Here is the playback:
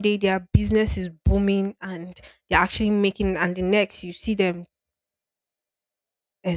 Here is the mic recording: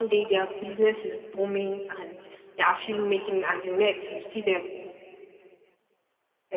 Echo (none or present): present